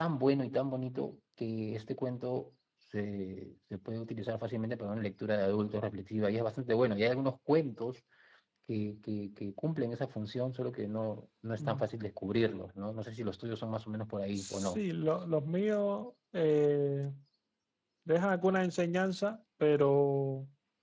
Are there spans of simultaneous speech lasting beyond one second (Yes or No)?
No